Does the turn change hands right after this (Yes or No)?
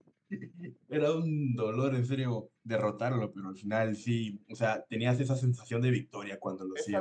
Yes